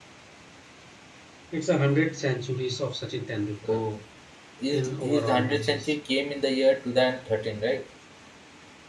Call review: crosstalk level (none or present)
present